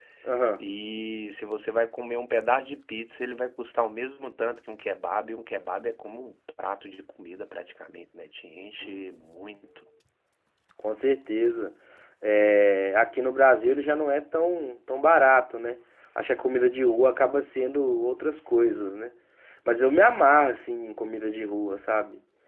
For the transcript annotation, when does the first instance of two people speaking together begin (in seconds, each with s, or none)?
none